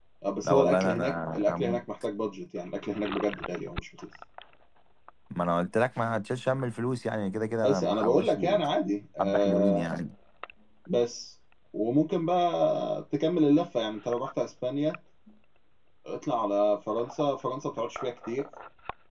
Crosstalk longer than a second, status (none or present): present